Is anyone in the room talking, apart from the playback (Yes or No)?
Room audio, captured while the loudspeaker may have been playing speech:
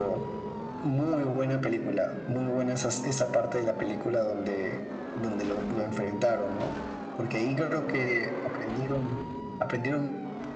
No